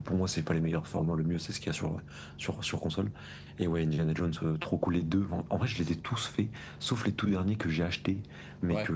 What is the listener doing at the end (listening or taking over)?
listening